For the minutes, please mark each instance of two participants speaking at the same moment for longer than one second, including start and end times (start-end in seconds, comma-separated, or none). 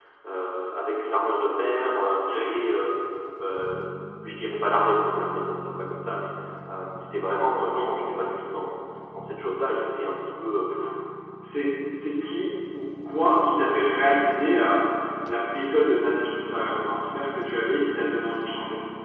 none